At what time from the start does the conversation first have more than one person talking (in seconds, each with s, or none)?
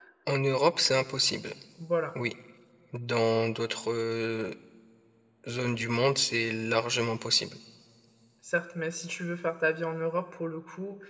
none